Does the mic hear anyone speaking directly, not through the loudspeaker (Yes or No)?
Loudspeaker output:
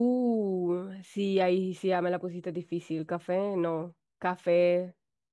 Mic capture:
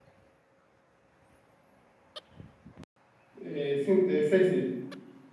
Yes